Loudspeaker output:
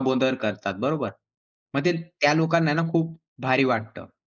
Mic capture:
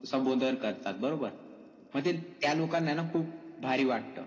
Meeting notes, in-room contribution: none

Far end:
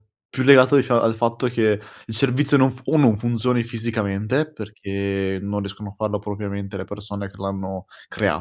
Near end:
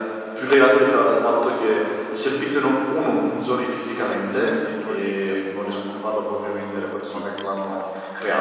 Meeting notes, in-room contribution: present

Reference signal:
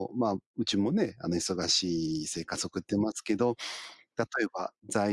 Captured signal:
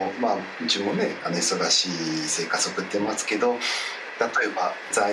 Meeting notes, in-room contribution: none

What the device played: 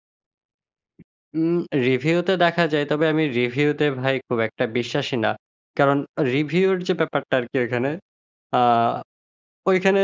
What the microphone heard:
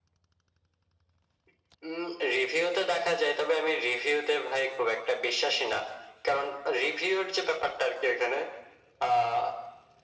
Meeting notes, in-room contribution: none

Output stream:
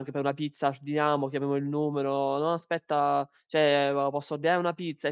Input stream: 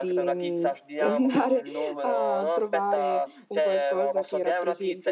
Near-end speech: present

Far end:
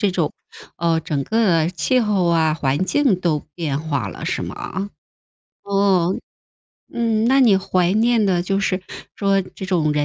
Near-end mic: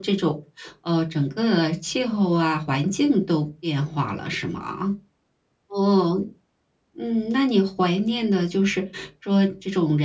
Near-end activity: none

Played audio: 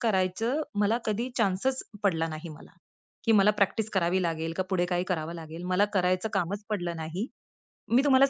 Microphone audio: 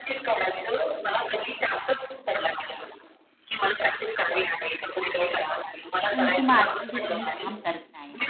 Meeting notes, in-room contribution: present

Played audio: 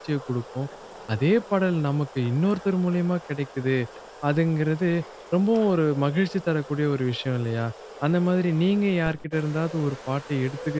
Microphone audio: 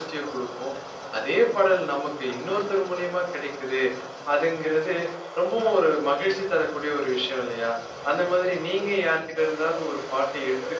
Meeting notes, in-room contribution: none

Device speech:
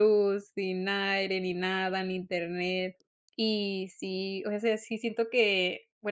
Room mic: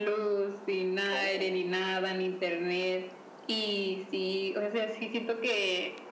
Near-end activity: present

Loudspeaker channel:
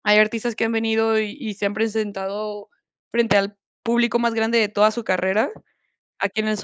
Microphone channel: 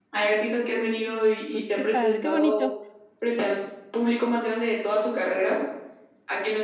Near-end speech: present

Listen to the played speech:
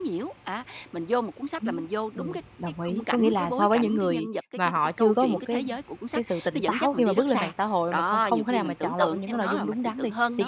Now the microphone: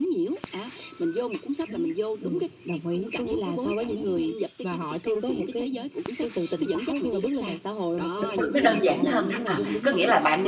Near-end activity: present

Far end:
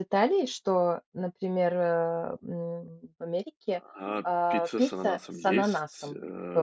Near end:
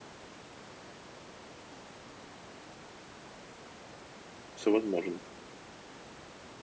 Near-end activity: present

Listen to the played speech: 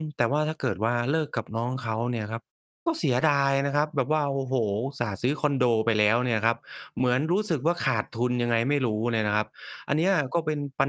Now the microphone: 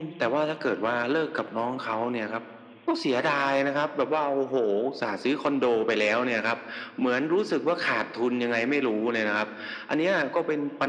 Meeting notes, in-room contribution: none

